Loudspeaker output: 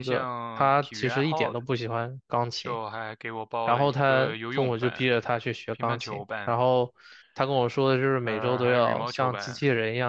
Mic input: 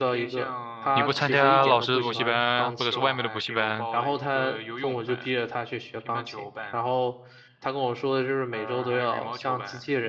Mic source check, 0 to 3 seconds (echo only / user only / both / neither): both